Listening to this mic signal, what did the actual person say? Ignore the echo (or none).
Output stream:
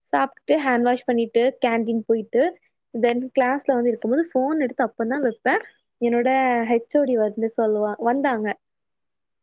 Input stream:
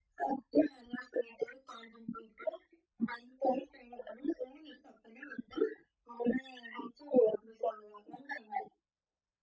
none